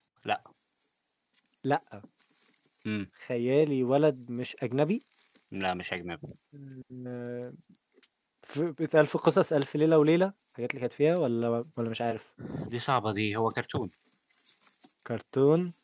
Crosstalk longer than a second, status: none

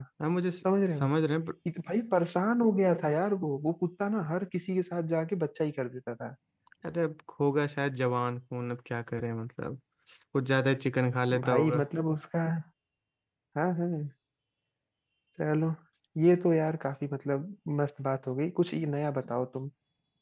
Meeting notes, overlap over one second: none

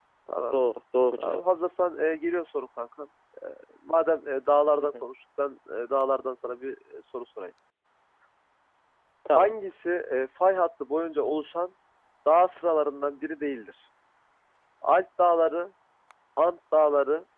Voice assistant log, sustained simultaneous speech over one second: none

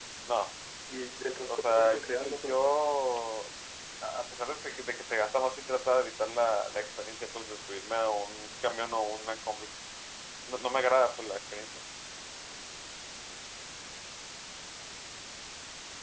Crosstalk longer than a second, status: present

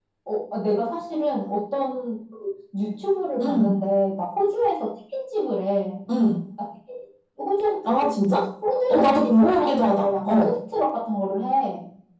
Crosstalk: present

